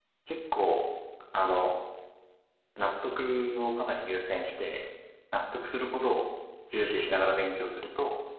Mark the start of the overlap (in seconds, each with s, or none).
none